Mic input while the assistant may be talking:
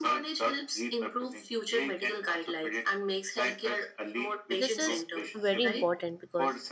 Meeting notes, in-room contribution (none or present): present